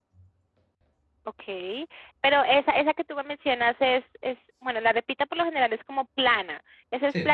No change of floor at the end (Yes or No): Yes